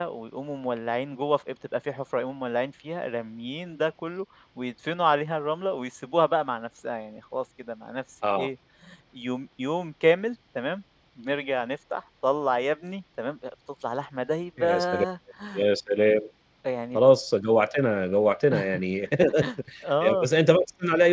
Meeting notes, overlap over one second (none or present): none